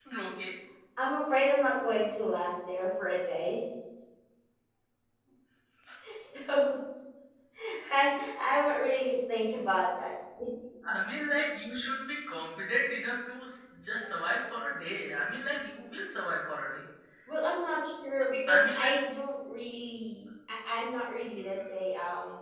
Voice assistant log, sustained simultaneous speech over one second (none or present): none